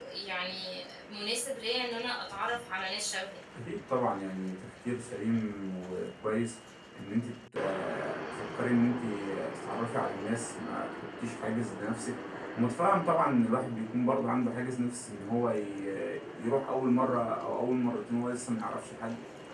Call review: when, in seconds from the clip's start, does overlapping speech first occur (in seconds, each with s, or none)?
none